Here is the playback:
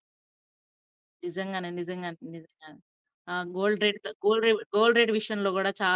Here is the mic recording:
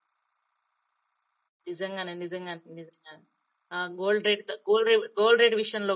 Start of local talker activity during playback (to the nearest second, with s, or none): none